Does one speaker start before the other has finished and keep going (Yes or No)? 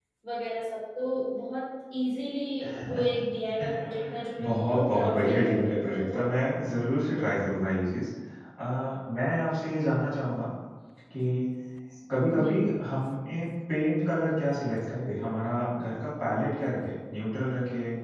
Yes